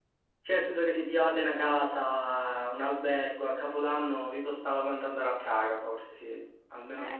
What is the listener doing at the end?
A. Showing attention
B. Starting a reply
B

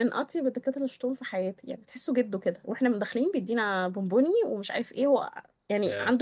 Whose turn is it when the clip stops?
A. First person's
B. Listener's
A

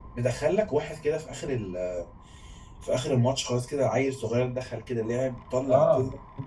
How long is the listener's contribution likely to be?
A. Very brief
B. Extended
B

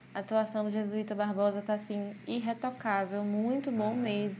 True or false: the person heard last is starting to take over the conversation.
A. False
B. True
B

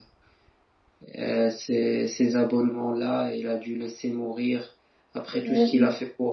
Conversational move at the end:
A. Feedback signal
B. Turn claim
A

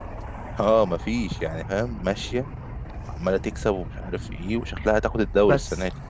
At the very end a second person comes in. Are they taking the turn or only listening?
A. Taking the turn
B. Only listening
A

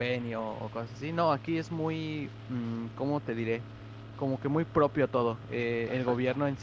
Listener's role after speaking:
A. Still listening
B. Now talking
A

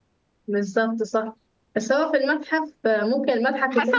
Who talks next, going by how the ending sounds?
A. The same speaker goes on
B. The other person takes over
B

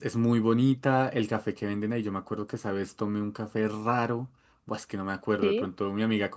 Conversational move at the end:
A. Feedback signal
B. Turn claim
A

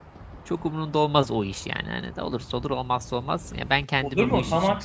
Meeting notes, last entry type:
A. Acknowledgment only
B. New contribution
B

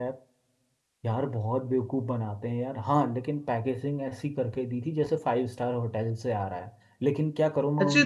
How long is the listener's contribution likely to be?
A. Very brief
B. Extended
B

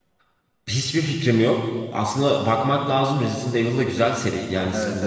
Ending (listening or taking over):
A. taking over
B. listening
B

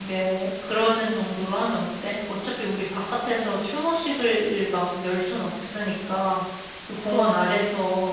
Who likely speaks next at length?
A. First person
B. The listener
A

